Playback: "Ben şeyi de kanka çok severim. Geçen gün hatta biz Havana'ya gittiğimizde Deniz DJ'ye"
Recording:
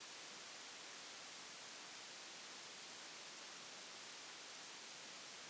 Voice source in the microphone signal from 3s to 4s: neither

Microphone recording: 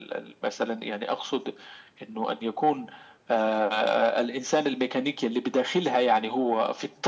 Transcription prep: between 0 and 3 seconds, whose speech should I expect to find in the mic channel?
echo only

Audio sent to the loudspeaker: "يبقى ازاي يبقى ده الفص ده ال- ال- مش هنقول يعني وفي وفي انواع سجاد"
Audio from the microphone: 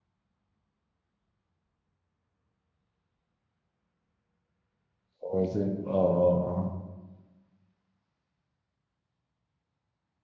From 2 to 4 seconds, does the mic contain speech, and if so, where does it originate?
neither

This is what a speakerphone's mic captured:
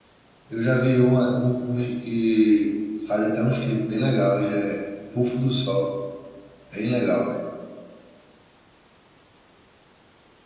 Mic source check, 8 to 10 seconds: neither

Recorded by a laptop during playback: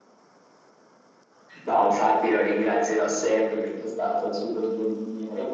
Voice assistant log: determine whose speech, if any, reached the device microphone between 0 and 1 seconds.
neither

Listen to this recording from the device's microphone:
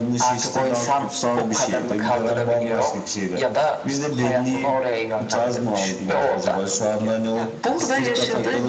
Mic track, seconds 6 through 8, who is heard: both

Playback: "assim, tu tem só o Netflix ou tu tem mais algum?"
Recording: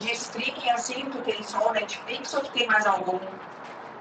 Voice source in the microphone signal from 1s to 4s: echo only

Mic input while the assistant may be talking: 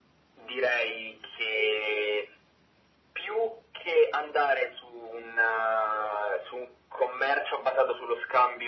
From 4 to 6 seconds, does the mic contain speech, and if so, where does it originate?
echo only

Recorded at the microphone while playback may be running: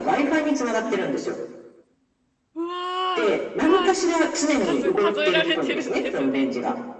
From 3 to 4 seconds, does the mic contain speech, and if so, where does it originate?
both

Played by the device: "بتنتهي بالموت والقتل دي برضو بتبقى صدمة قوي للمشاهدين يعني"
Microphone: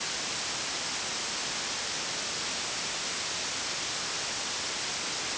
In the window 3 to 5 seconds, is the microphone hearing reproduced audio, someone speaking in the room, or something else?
neither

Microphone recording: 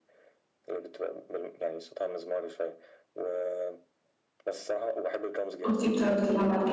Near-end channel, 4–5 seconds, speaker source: echo only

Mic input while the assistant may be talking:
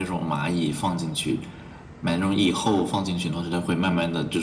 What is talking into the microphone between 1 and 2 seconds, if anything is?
echo only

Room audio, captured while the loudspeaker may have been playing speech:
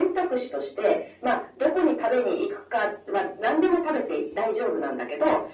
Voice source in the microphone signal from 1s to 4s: echo only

